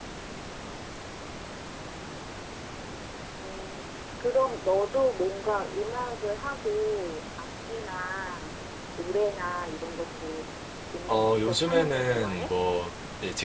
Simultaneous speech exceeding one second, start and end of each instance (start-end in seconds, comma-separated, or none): 11.1-12.5